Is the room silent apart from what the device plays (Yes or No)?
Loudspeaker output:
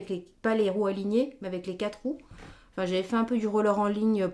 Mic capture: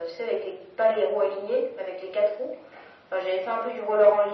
Yes